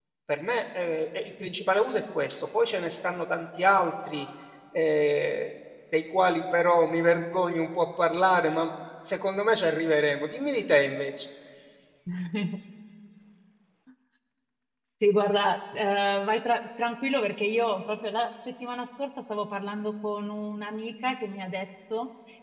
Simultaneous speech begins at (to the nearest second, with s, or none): none